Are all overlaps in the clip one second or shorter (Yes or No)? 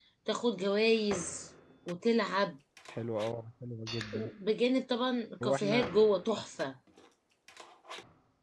Yes